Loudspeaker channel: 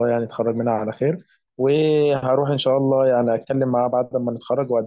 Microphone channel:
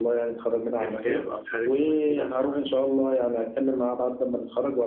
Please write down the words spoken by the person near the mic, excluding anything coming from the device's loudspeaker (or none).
ككتاب او حاجه شبه كده